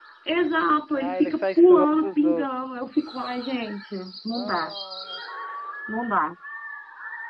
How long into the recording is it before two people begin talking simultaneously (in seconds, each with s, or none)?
0.9 s